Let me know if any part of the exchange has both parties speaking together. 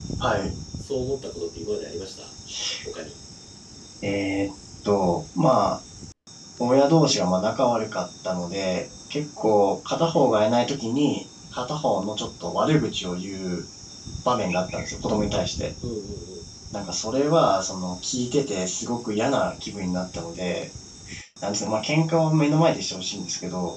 No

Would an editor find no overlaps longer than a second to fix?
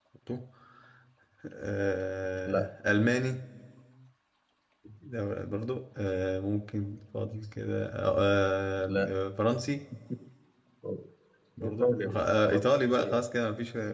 No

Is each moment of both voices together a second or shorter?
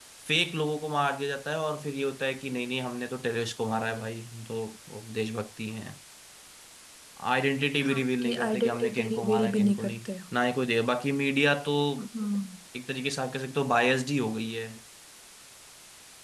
No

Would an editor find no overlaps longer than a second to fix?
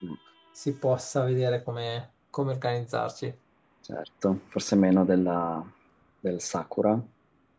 Yes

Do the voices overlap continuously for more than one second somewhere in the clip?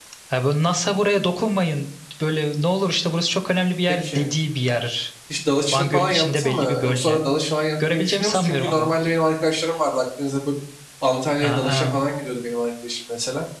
Yes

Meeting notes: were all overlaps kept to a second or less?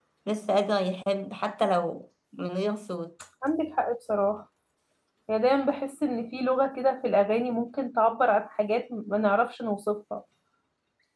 Yes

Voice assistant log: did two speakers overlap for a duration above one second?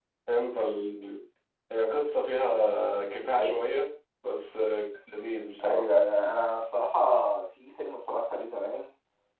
No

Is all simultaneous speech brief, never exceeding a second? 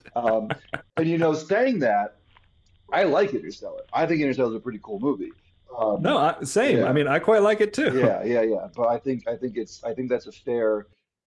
Yes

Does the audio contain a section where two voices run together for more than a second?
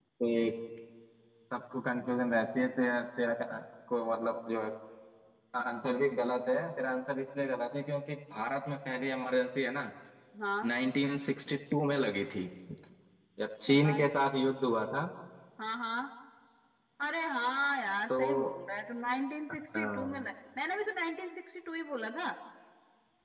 No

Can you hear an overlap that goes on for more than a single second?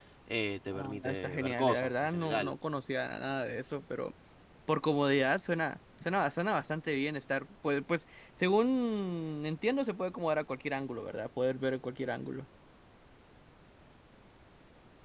Yes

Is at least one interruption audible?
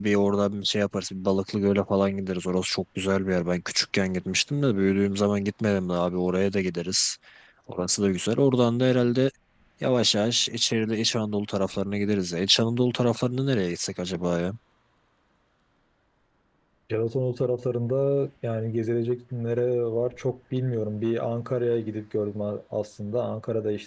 No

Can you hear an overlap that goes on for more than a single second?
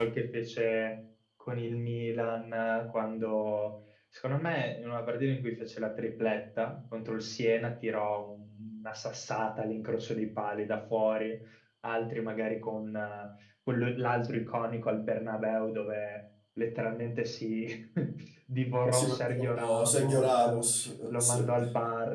Yes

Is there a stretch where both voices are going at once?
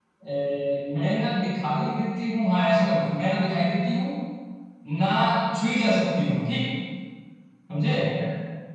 No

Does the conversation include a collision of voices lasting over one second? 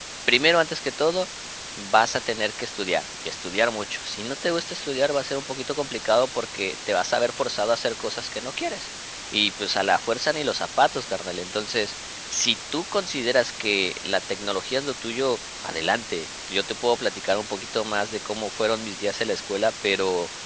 No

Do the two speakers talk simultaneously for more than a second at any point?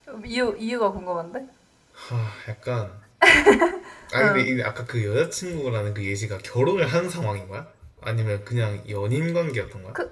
No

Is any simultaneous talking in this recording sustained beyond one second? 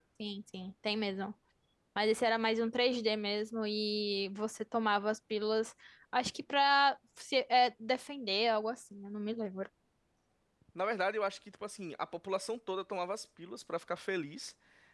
No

